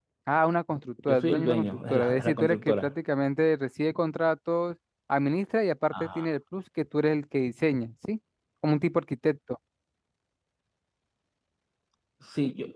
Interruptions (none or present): present